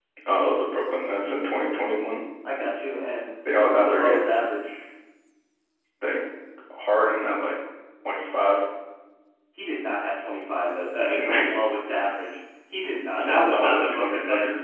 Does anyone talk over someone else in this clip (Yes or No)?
Yes